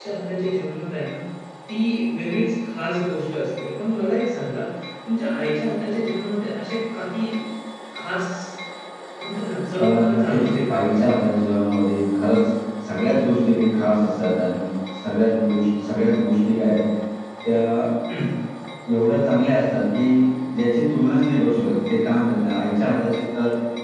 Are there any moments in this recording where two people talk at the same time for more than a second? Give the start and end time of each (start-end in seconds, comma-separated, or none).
9.8-11.1